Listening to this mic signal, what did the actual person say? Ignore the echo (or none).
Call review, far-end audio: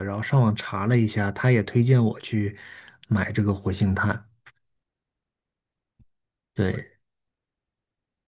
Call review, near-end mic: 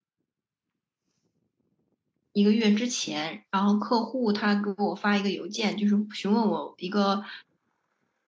一个月之前，然后客户他给我发一个邮件，就是询问我一个